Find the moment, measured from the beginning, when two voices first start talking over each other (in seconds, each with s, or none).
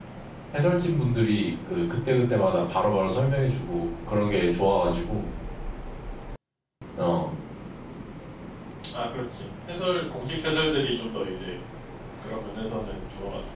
none